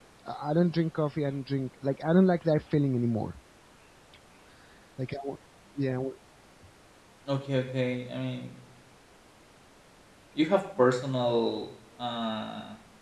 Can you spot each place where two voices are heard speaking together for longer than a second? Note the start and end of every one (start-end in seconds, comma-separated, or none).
none